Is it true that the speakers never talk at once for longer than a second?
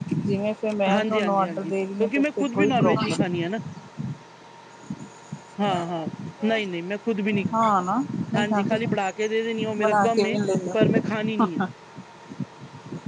No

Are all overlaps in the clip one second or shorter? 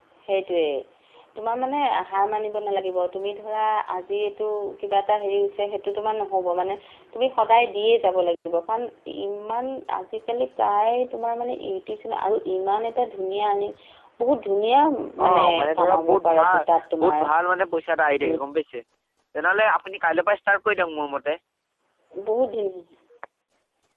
No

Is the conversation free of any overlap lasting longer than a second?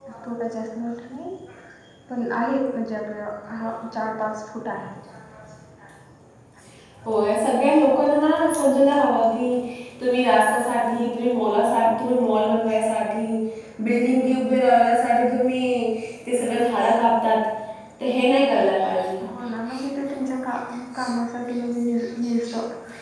Yes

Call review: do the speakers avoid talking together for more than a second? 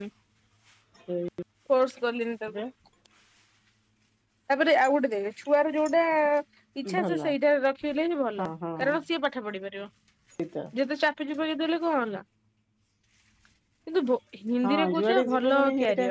No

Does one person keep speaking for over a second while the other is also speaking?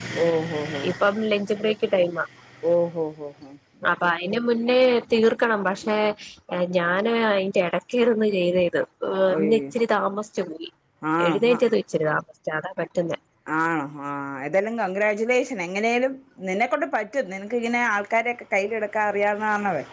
No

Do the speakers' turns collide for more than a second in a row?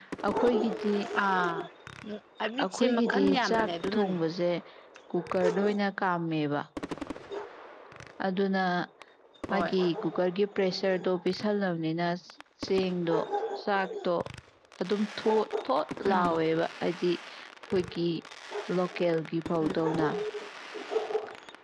Yes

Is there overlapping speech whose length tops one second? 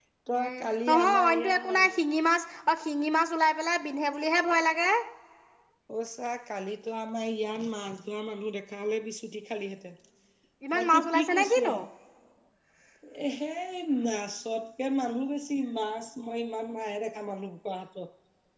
Yes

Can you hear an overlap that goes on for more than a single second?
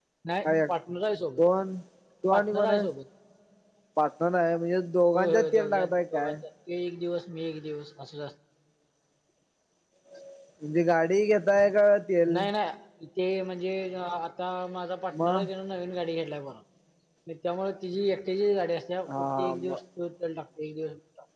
Yes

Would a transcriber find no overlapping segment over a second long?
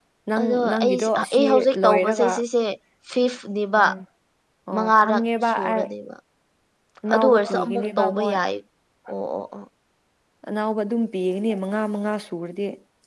No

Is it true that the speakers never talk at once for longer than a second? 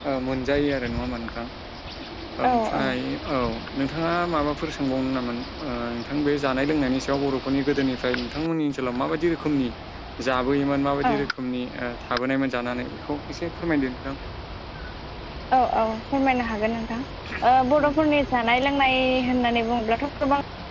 Yes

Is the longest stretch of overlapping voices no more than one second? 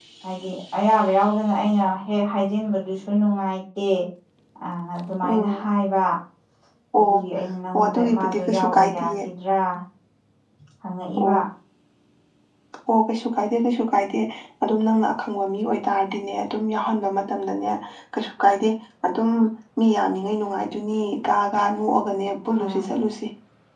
No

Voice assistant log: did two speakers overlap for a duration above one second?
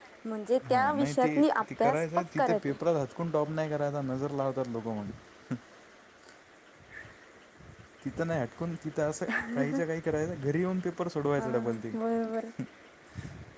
Yes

